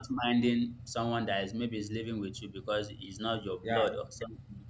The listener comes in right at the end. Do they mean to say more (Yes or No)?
No